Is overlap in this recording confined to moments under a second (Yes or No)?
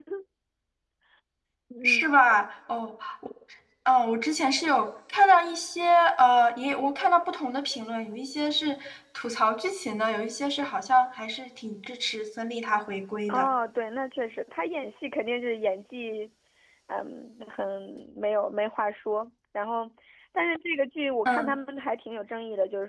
Yes